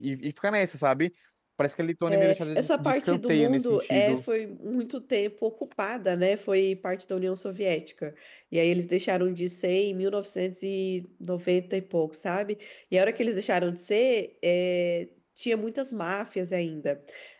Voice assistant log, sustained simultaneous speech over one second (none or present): present